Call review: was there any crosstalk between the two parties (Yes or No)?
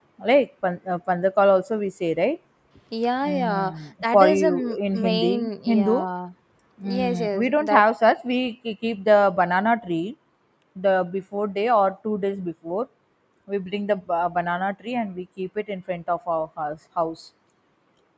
Yes